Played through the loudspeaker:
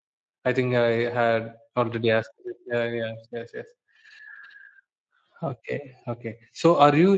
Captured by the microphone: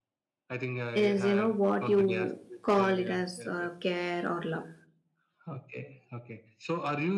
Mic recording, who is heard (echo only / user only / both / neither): both